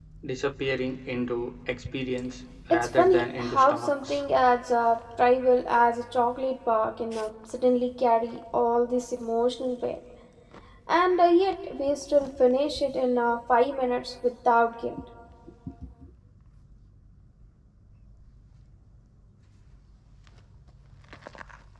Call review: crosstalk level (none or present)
present